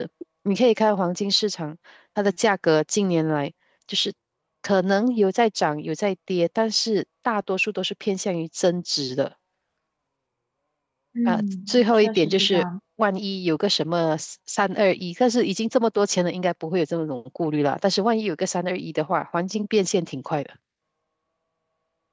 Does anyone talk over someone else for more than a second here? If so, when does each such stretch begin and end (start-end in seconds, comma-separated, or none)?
11.3-12.6